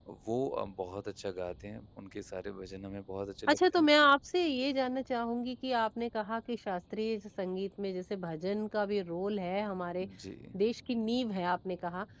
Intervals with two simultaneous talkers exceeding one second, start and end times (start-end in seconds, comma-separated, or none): none